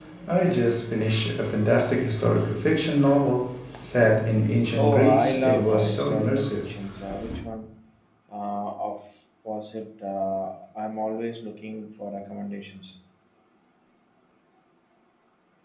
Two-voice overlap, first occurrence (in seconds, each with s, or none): 4.8 s